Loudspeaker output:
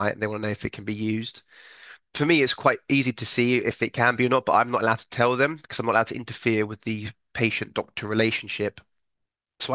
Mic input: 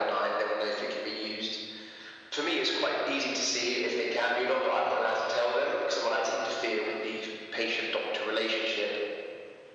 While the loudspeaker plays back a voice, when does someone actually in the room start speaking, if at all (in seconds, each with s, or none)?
none